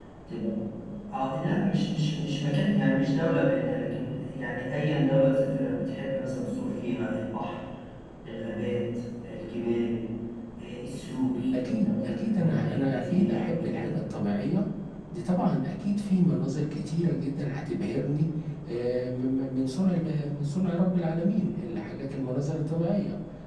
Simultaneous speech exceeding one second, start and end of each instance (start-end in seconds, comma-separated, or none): 11.6-14.0